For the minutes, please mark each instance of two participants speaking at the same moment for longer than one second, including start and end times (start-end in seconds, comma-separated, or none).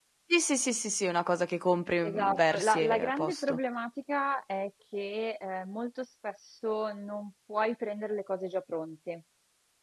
2.0-3.6